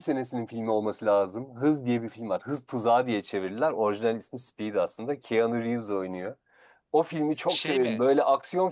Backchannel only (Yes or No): Yes